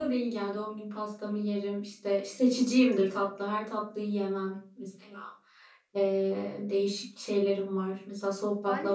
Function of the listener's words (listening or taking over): taking over